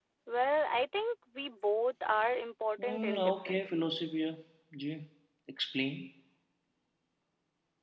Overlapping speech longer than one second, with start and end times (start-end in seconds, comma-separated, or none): 2.8-4.2